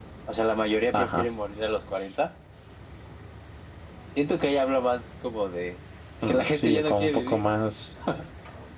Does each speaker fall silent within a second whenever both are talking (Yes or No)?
No